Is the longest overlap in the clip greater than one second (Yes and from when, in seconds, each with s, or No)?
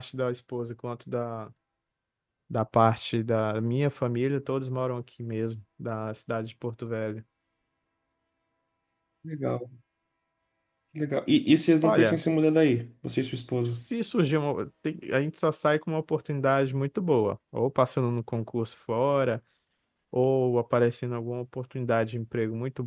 No